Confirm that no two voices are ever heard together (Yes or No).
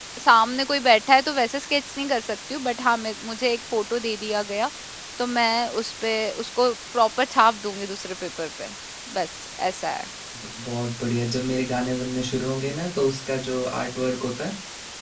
Yes